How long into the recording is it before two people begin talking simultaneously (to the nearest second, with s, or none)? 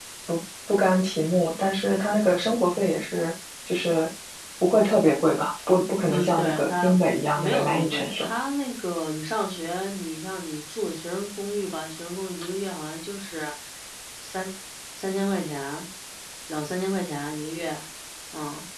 6 s